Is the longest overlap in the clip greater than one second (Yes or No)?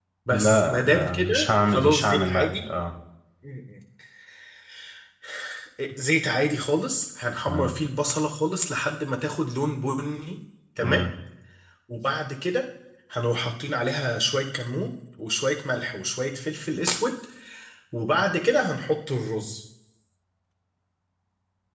Yes